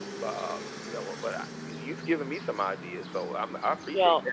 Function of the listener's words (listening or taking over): taking over